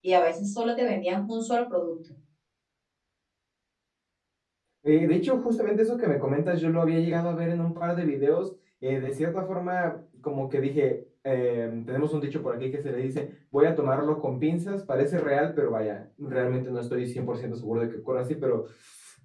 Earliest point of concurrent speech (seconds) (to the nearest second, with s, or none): none